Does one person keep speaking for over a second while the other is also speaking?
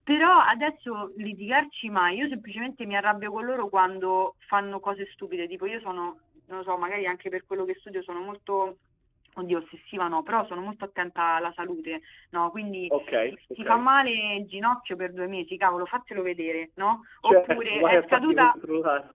Yes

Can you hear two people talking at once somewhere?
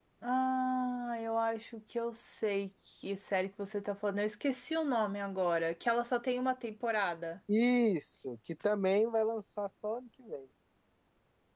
No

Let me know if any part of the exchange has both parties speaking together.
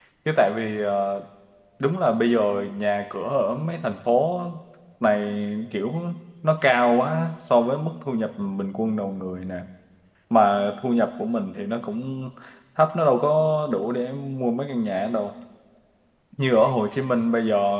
No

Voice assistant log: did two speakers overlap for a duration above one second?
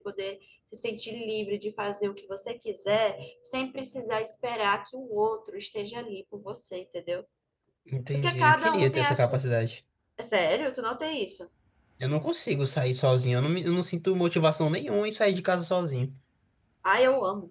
Yes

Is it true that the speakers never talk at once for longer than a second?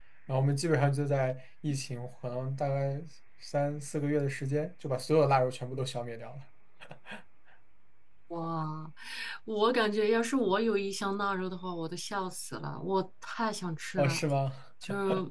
Yes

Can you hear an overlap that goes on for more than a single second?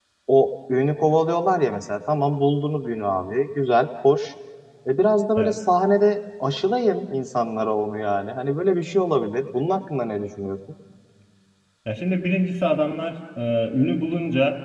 No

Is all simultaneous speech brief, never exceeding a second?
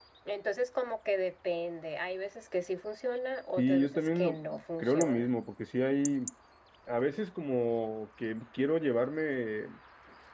No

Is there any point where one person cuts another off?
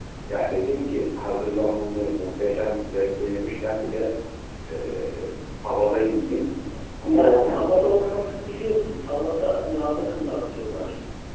Yes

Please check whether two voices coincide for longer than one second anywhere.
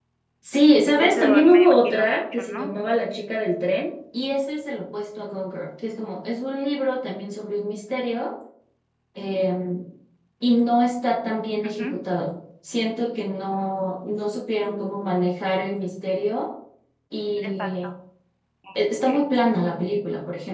Yes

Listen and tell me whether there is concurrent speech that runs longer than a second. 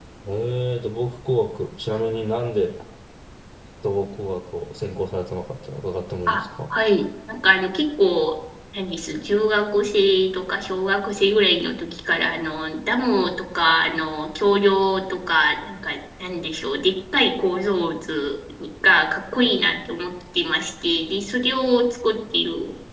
No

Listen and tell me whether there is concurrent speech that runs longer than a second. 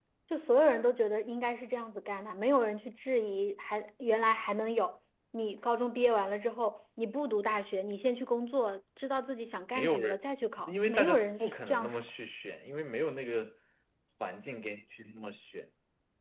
Yes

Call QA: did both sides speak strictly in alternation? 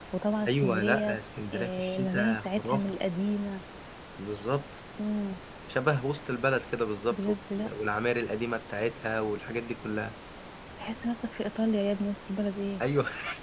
No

